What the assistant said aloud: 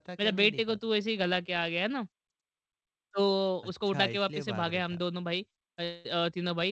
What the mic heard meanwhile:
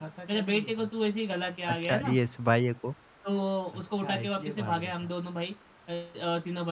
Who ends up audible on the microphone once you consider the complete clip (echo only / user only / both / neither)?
both